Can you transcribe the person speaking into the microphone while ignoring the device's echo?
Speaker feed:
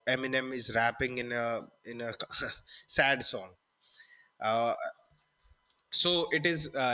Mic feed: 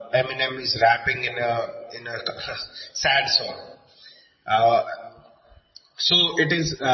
none

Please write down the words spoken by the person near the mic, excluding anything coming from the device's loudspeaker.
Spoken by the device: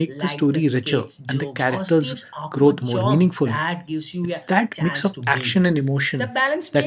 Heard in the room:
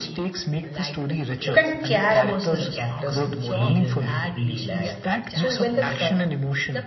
you can care about the characters in either everyday life so when the su-

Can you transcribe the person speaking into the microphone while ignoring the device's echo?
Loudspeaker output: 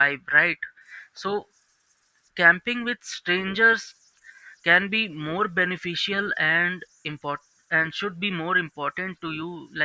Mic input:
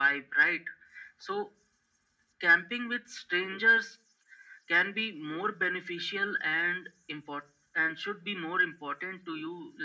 none

